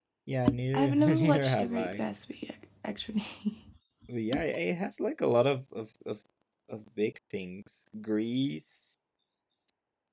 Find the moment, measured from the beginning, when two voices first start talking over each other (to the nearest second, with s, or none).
1 s